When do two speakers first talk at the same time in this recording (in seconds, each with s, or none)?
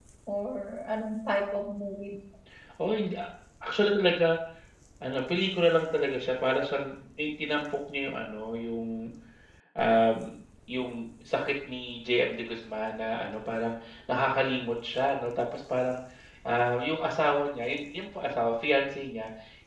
none